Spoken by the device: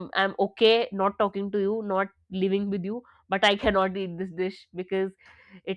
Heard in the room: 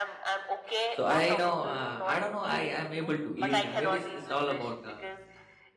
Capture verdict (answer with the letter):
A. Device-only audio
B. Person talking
B